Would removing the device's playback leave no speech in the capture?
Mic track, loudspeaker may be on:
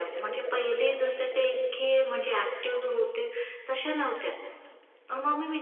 Yes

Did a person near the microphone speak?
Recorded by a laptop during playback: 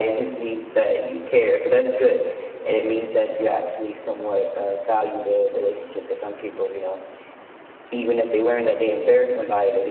No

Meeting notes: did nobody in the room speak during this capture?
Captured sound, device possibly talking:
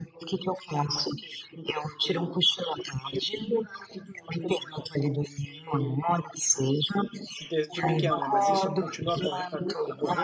No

